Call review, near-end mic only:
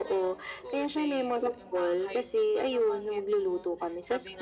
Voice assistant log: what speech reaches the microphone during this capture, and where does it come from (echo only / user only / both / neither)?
both